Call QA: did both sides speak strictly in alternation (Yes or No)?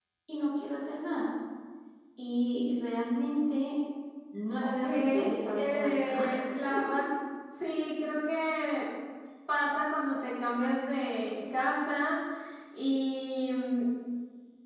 No